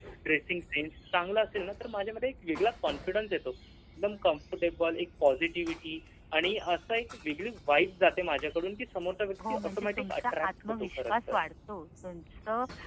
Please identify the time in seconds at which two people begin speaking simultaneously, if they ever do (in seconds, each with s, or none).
9.4 s